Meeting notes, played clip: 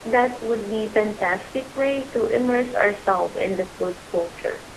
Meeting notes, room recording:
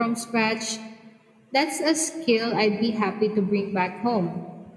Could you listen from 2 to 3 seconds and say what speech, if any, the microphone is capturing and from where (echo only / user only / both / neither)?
user only